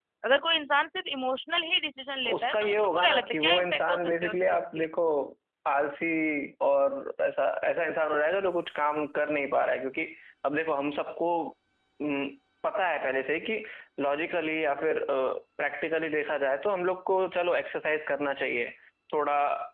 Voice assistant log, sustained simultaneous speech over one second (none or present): present